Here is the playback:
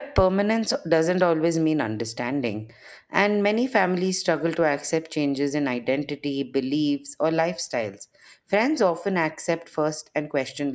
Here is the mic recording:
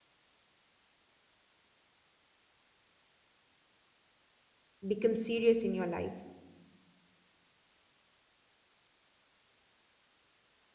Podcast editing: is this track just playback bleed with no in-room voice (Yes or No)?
No